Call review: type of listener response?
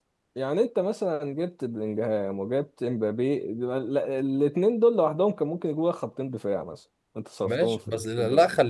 taking over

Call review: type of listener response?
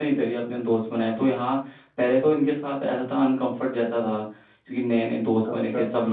listening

